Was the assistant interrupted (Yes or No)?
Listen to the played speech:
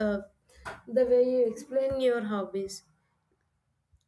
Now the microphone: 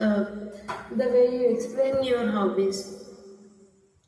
No